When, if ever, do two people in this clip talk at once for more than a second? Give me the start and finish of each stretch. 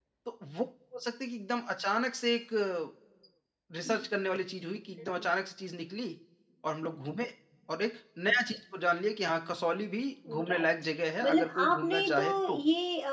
11.2-12.6

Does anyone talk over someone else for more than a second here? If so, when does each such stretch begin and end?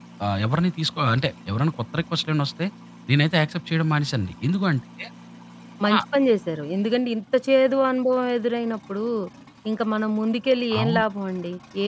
none

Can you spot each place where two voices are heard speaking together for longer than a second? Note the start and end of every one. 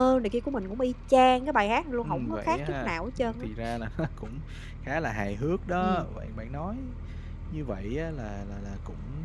2.0-3.5

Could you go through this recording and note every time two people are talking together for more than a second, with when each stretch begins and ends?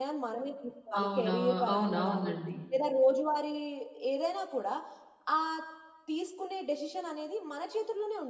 1.0-2.3

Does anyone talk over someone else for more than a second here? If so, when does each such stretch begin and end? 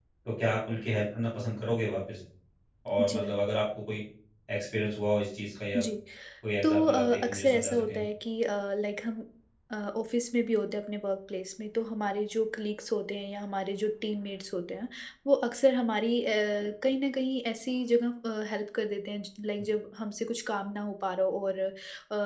6.6-8.0

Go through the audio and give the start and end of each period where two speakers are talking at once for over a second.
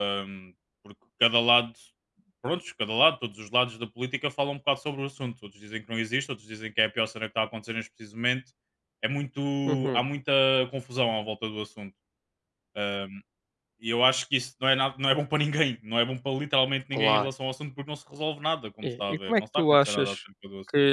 18.8-20.1

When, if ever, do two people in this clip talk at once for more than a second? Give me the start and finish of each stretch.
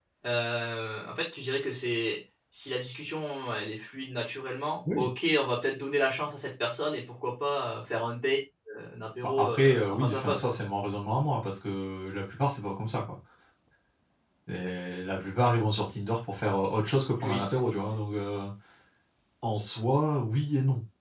9.4-10.6

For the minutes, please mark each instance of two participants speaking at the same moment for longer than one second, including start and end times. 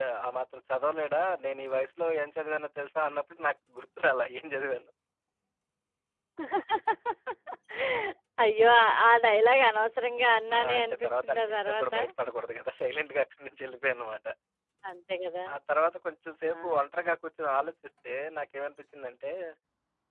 10.6-11.9

